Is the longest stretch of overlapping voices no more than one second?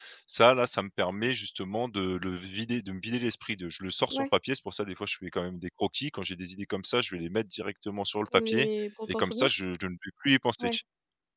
Yes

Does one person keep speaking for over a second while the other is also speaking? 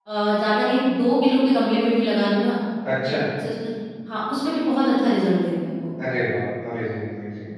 No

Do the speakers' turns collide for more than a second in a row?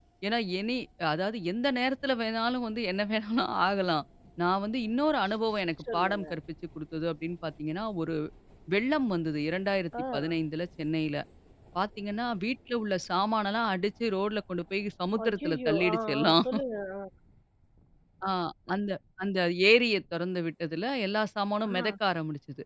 Yes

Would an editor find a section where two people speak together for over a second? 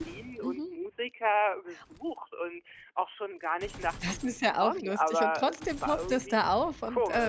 Yes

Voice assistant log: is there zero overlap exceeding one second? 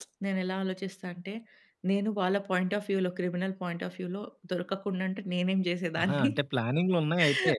Yes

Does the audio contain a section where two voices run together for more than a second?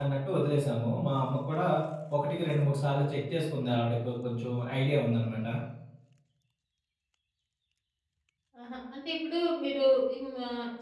No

